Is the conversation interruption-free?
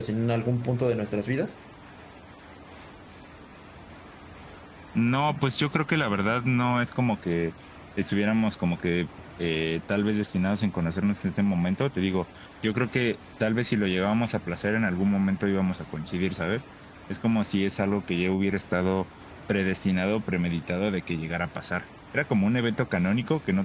Yes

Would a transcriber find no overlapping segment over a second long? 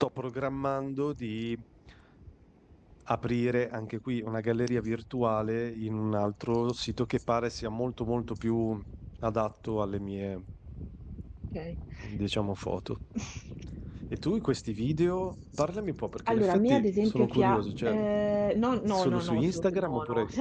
No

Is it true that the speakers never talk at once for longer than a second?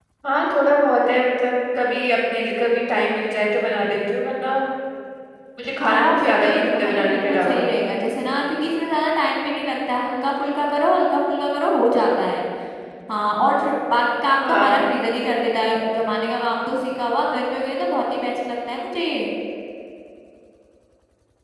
No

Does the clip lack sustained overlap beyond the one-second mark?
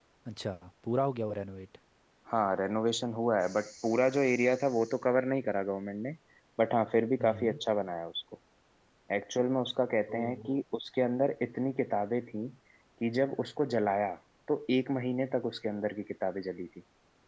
Yes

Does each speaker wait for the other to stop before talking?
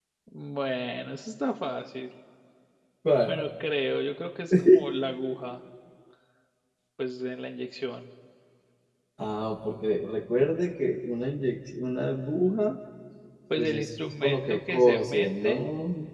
No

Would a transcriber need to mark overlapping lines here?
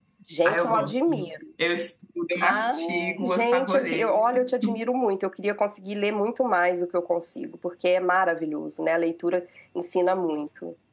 Yes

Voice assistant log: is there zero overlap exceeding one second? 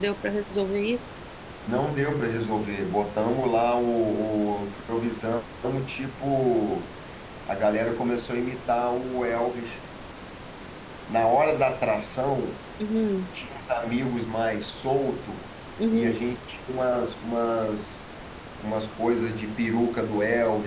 Yes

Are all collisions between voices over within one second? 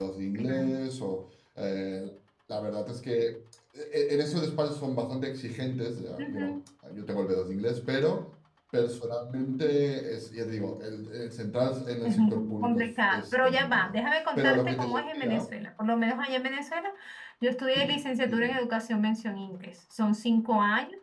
No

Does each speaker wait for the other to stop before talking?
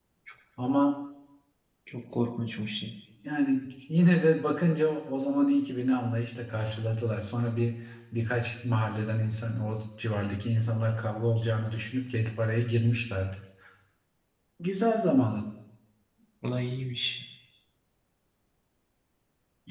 Yes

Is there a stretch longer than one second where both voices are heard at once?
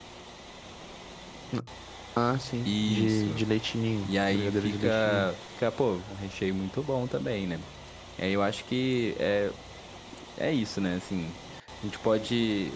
Yes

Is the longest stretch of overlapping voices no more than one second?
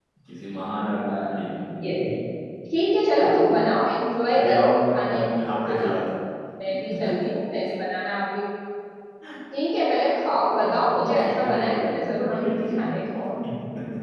No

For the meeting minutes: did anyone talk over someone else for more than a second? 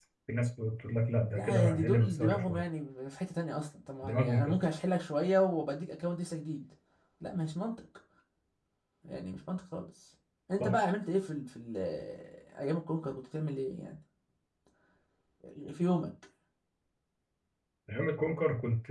Yes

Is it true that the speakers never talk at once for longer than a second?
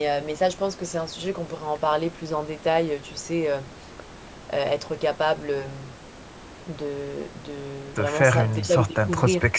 No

